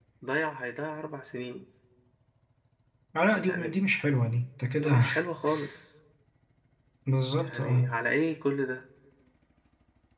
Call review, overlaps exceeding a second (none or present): none